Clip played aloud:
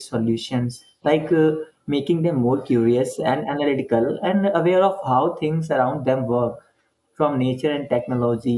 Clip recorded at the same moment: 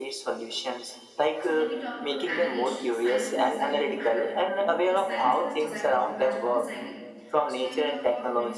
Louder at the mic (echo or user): echo